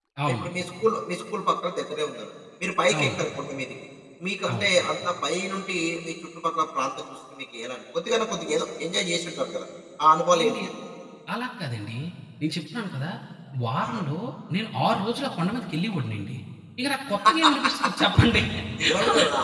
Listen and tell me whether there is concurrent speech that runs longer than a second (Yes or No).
No